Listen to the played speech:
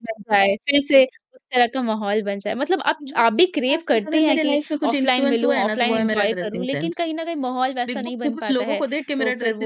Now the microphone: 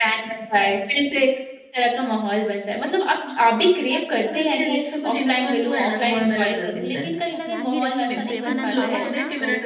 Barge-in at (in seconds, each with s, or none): 7.3 s